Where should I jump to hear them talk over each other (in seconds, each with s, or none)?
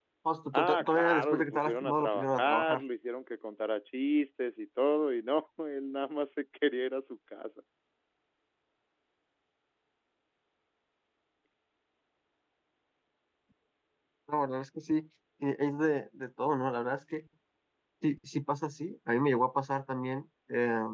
0.5 s